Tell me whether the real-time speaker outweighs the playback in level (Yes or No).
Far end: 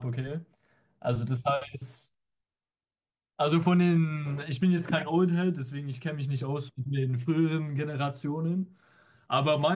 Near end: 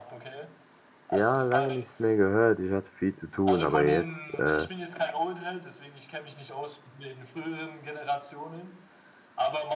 Yes